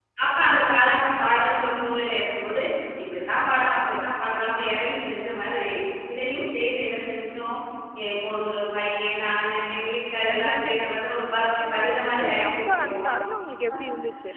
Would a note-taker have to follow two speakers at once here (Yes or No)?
Yes